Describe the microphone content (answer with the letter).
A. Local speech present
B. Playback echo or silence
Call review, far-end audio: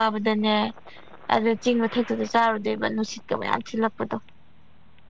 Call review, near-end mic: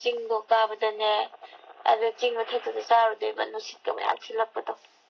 B